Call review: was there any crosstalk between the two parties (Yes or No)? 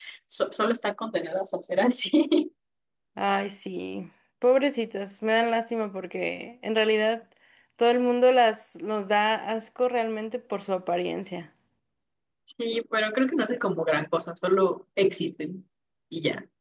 No